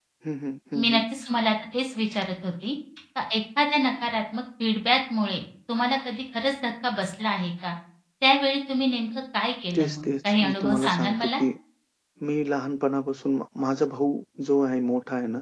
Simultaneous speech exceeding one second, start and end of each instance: 9.8-11.3

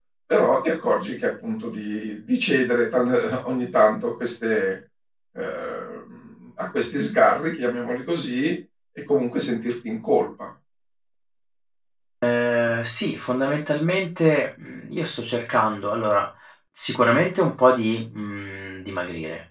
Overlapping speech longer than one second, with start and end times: none

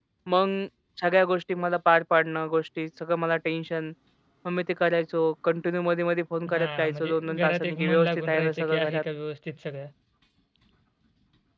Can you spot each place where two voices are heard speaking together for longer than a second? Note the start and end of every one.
6.5-9.0

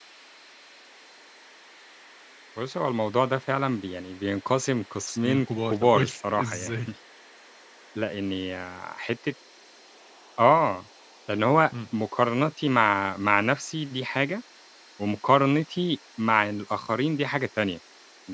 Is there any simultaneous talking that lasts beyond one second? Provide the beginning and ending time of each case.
5.1-6.8

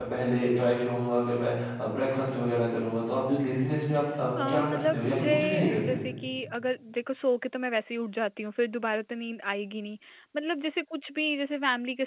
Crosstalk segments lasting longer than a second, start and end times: 4.5-6.0

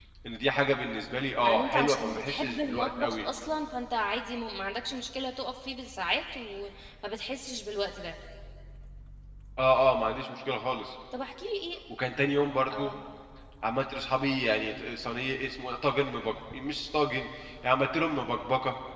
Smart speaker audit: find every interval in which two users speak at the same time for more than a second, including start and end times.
1.4-3.2

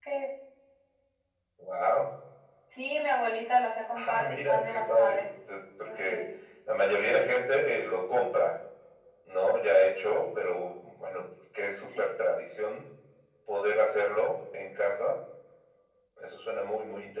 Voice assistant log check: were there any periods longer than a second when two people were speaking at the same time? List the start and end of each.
3.9-5.2

